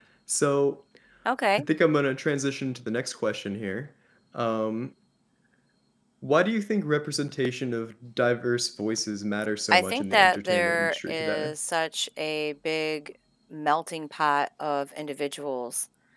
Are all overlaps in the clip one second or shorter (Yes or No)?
No